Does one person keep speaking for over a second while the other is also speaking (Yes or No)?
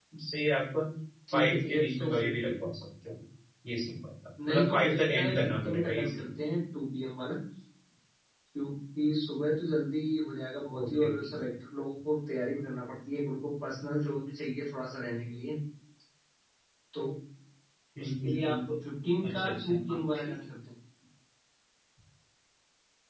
Yes